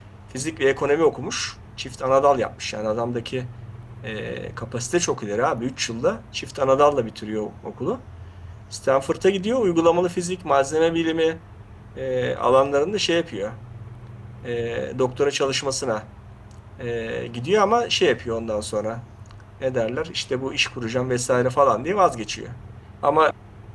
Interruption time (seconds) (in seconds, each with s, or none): none